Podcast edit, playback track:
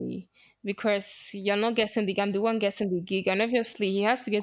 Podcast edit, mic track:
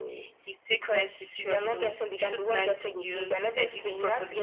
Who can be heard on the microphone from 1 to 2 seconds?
both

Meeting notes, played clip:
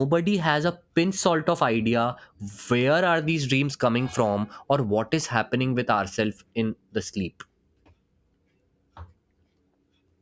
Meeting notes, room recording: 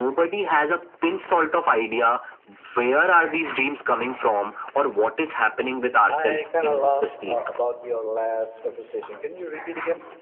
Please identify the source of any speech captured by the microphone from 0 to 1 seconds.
echo only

